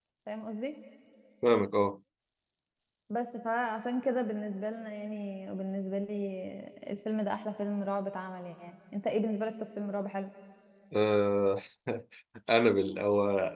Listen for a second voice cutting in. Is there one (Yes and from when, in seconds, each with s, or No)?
No